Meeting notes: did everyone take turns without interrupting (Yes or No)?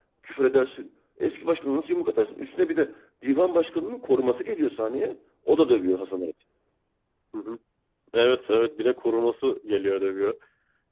Yes